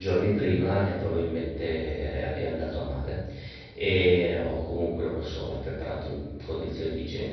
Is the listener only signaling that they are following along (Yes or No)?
Yes